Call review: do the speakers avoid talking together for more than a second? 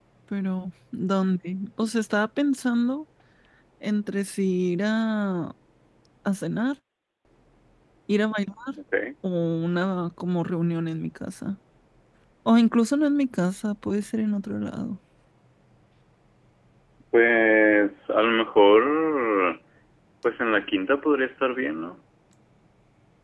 Yes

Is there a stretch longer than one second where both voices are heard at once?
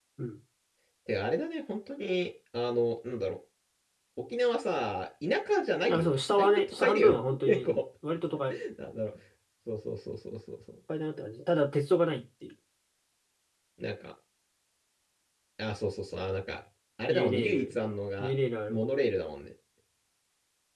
Yes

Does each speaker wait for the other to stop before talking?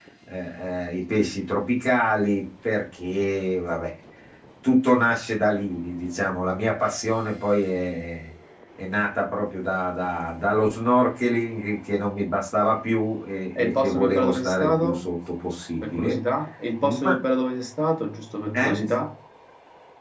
No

